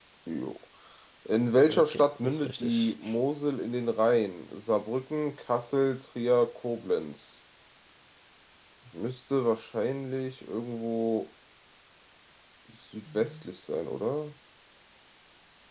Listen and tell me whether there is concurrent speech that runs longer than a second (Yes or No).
Yes